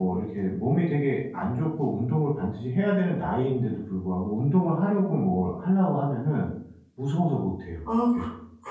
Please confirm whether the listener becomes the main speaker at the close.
Yes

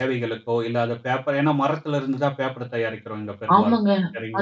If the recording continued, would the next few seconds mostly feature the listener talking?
Yes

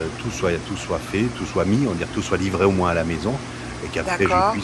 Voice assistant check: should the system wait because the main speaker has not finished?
Yes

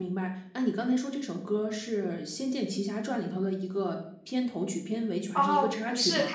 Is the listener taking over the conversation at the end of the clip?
Yes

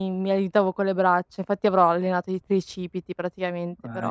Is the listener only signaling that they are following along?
No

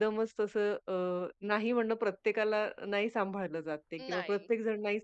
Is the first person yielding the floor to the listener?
No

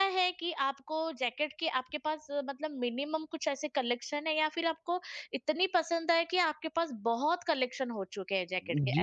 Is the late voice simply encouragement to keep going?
No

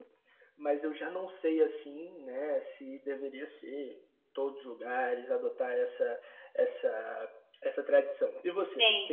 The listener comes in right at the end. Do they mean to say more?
Yes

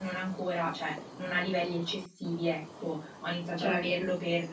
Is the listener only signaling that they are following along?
Yes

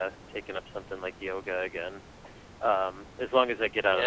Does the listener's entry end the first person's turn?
No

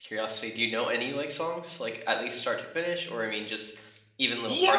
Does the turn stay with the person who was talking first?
No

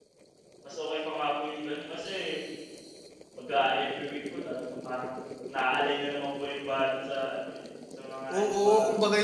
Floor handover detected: Yes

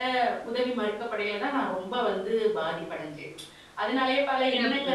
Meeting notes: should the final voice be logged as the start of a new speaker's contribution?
No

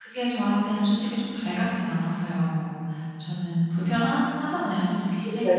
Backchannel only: No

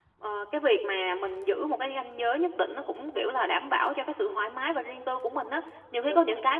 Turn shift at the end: No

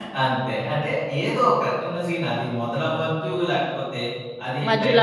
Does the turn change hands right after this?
No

